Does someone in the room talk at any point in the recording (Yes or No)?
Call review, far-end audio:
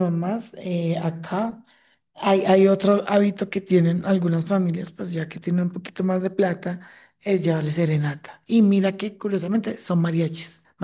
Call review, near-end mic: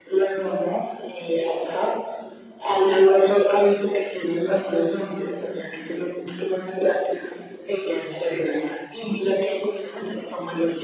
No